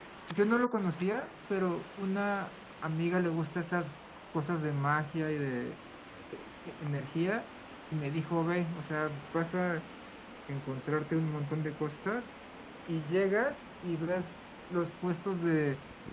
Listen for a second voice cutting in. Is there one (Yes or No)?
No